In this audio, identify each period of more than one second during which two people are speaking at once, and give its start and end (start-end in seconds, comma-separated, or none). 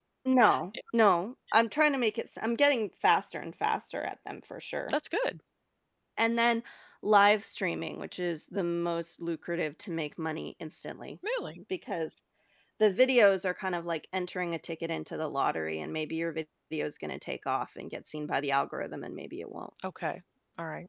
none